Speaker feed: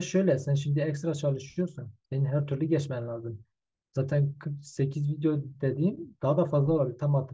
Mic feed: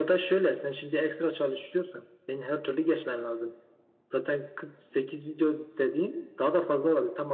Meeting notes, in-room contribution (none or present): none